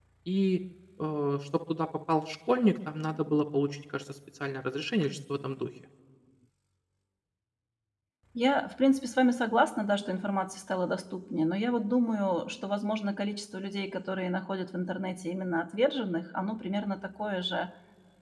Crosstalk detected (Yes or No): No